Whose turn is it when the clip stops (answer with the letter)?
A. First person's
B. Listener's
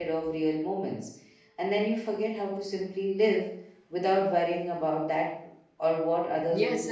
B